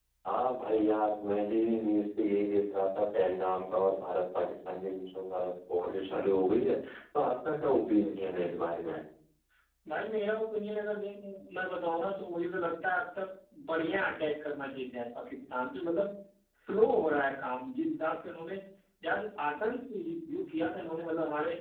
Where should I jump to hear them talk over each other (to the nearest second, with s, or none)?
none